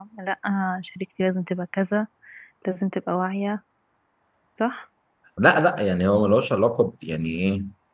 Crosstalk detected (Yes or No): No